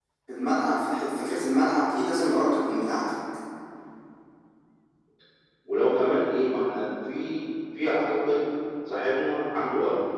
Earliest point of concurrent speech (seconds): none

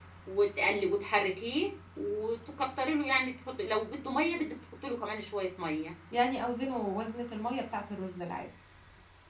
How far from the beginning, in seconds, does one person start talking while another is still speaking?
none

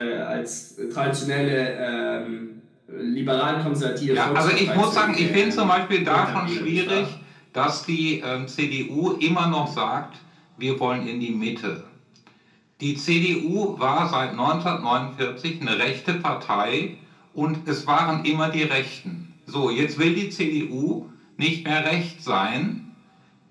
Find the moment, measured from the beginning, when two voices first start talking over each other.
4.1 s

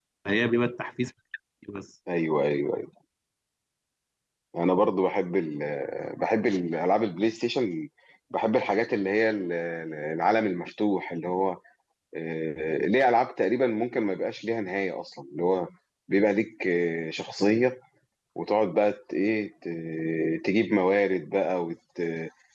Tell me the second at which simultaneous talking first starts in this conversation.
none

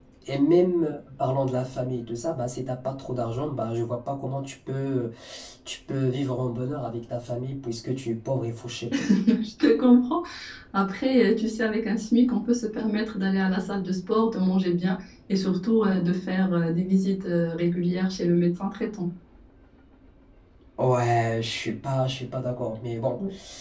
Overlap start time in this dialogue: none

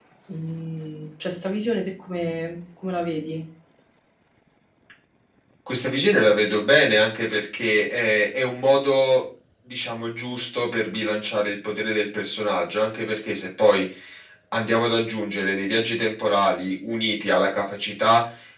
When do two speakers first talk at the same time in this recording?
none

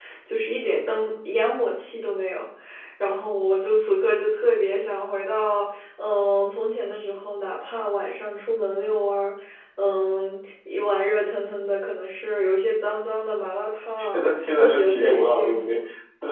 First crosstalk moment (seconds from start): 14.0 s

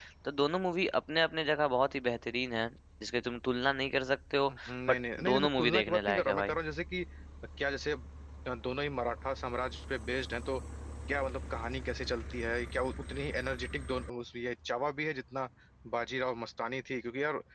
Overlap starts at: 4.4 s

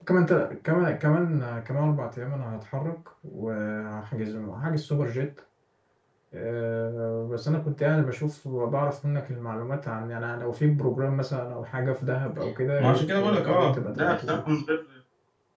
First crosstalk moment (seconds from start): 12.8 s

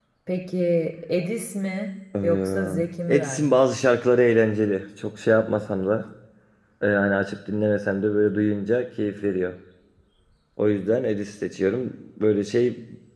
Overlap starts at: 2.1 s

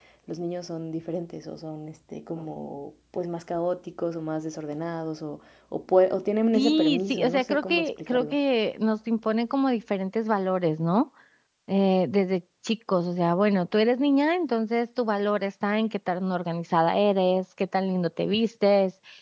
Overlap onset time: 6.5 s

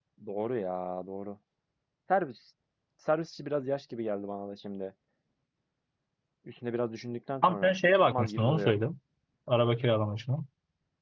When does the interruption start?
7.4 s

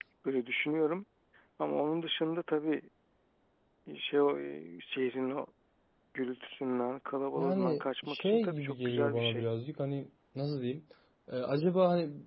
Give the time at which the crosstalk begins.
7.4 s

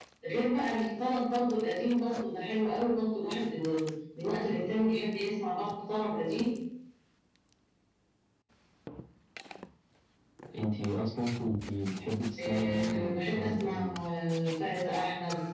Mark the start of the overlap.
12.4 s

